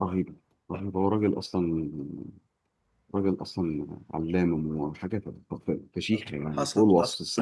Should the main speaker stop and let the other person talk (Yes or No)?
Yes